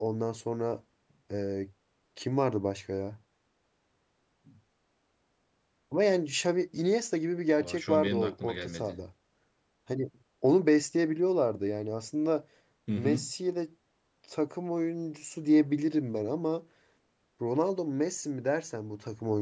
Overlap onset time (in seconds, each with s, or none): 7.6 s